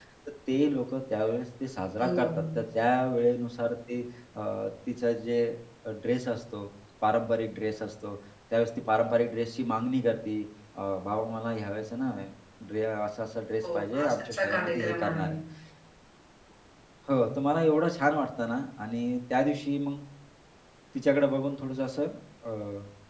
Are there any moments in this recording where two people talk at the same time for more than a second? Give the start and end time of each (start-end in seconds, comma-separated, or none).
13.7-15.3